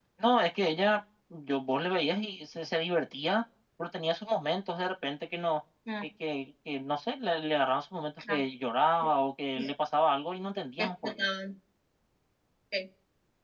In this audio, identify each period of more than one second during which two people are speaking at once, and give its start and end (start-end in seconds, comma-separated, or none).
none